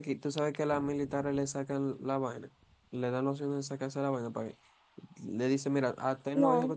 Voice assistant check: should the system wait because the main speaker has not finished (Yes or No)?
Yes